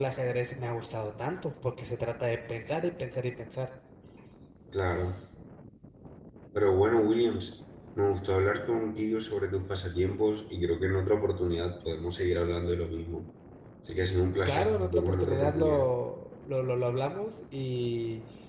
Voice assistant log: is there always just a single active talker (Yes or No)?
No